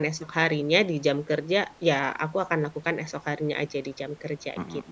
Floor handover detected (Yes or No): Yes